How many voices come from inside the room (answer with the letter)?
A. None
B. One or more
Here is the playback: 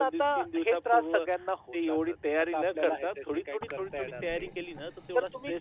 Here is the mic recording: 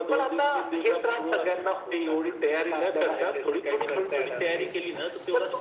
A